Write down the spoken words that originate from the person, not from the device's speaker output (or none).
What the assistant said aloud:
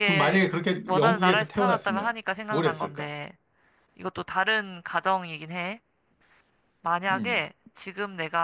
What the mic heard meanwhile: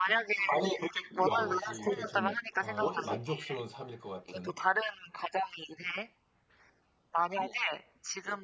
뭐라 고 하지 이게 좀, 어, 만족스러운 삶일 것 같은,